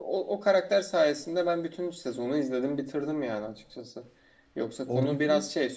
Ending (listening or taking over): listening